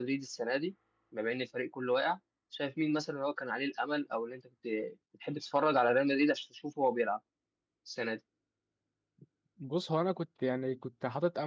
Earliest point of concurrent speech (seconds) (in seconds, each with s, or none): none